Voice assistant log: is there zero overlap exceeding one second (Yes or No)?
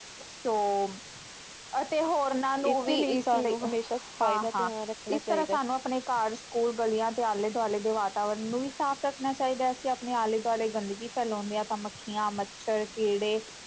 No